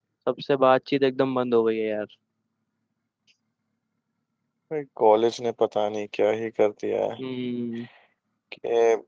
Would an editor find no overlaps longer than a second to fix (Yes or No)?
Yes